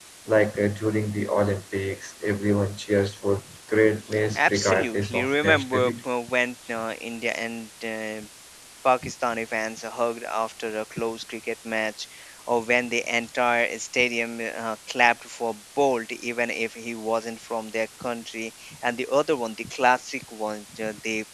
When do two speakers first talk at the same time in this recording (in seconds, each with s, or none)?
4.3 s